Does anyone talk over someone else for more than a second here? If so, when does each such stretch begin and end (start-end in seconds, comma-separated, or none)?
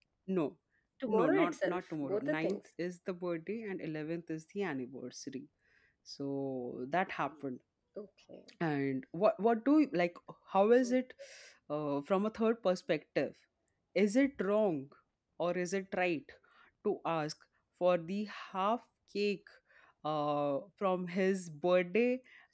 1.1-2.6